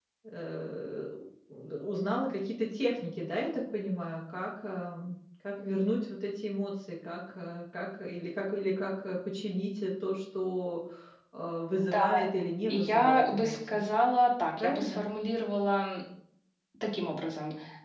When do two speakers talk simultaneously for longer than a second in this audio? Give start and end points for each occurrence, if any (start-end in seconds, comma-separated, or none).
12.7-13.9